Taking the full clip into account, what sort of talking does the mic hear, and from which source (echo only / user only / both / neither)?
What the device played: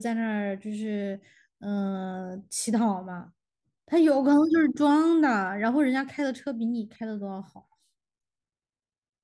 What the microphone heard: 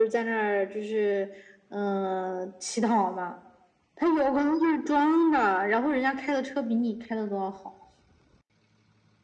echo only